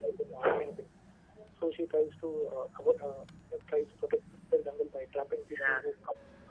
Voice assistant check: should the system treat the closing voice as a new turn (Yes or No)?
No